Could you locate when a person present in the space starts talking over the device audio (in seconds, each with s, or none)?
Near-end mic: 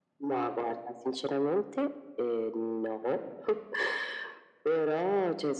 none